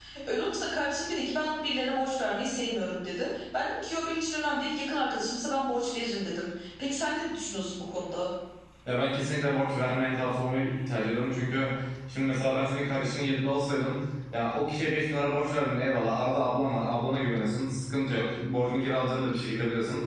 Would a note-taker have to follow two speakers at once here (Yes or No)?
No